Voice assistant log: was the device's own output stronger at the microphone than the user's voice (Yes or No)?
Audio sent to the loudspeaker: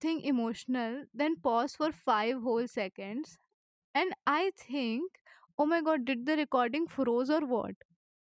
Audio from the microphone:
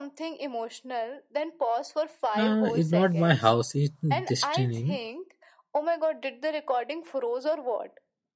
No